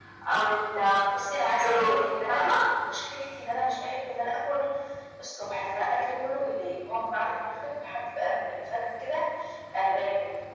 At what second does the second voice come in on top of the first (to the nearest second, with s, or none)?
1 s